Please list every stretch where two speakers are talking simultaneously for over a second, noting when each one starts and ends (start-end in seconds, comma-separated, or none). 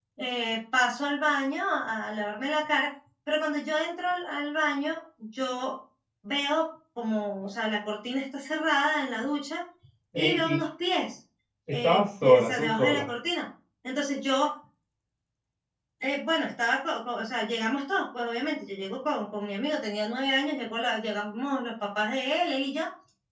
11.7-13.1